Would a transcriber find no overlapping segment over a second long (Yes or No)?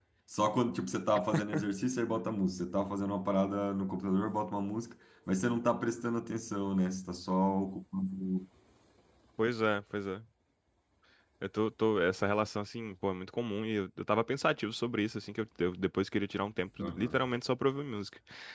Yes